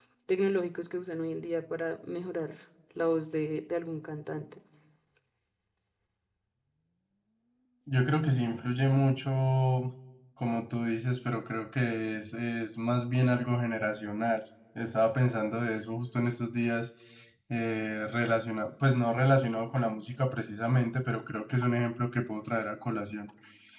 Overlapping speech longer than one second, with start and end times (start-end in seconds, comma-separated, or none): none